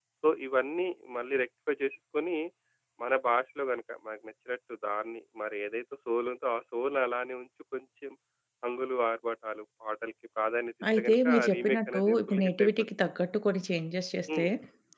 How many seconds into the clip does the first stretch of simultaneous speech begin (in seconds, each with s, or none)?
10.8 s